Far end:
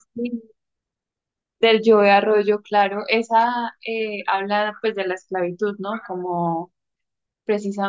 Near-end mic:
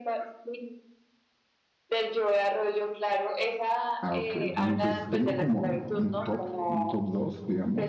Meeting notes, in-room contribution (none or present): present